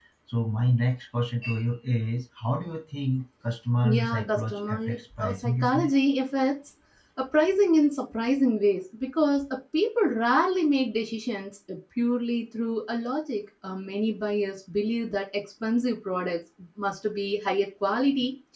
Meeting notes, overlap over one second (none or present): present